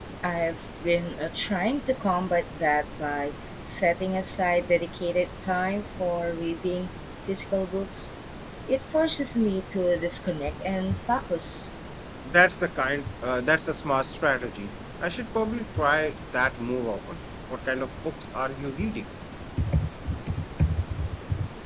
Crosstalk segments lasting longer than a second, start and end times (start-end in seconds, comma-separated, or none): none